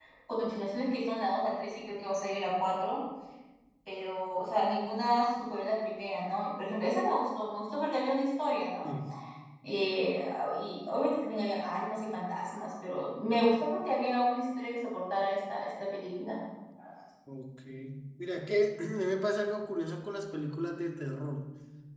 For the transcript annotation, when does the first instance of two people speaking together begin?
none

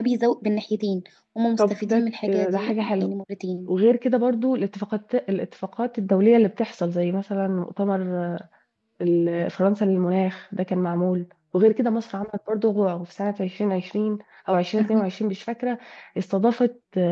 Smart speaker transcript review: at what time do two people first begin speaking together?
2 s

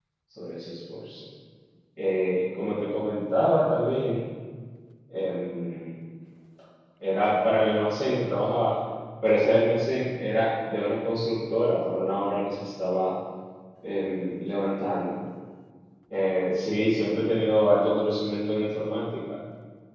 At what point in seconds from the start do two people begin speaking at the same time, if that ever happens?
none

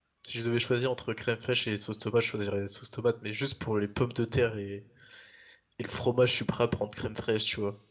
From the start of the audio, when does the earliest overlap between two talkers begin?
none

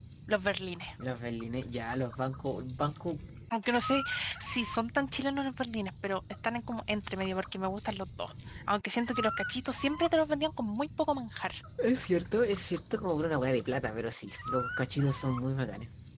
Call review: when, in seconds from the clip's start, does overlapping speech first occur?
none

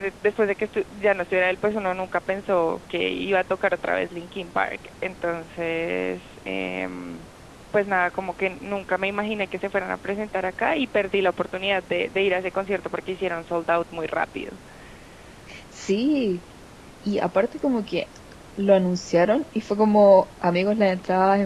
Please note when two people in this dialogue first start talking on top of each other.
none

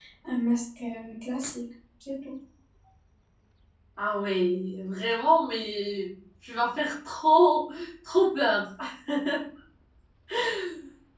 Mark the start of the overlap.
none

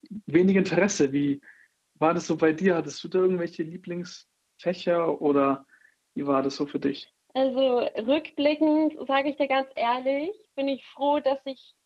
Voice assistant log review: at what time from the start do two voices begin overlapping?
none

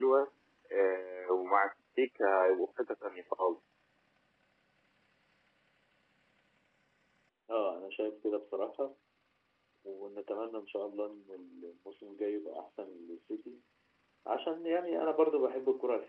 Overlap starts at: none

